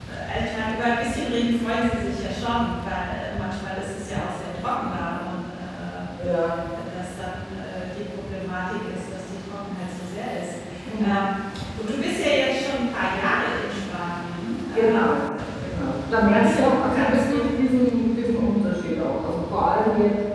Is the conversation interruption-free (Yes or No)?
No